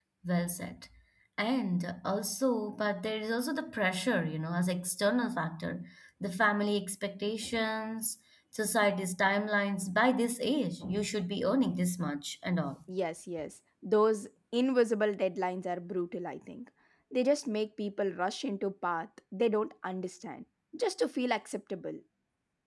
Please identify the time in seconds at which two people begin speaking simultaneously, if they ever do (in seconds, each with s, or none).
none